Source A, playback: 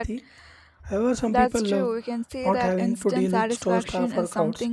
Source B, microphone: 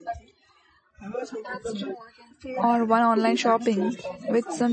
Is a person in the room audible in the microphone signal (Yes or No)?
Yes